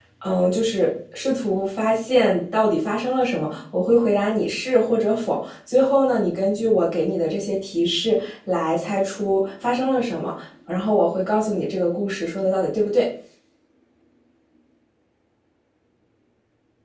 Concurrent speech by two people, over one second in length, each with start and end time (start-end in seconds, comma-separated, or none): none